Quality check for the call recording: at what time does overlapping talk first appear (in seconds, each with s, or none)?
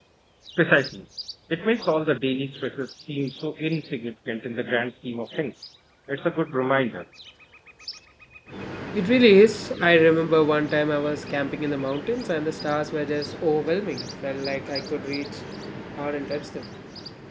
none